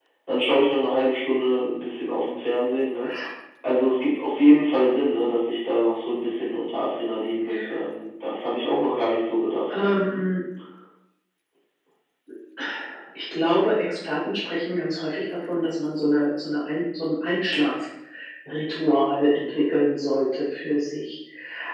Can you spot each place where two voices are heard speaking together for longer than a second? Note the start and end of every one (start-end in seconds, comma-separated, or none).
none